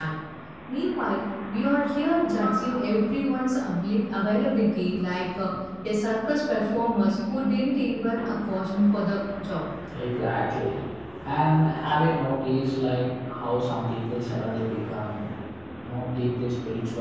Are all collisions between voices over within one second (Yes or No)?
Yes